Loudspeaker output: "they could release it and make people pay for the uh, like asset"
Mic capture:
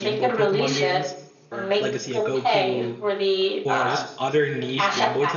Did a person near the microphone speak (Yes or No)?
Yes